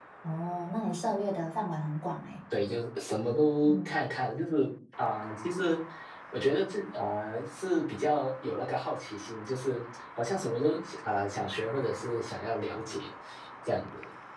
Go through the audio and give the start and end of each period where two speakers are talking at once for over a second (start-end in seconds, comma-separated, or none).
none